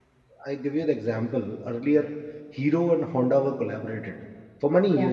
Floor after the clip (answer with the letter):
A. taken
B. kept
B